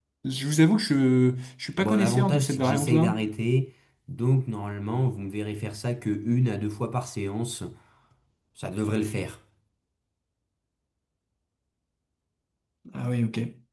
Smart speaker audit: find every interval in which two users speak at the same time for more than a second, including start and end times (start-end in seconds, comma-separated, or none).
1.8-3.2